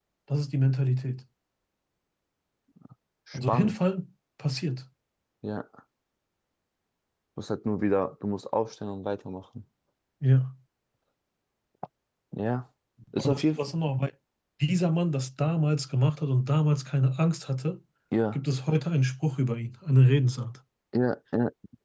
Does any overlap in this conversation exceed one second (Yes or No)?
No